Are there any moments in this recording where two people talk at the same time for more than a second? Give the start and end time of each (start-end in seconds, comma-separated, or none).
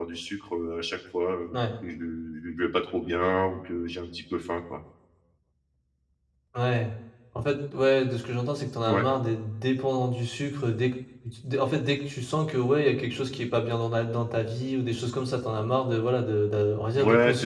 none